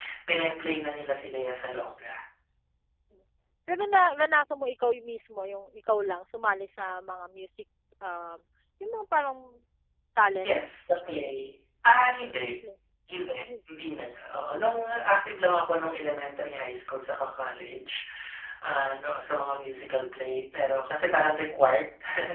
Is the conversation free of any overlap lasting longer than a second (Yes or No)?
Yes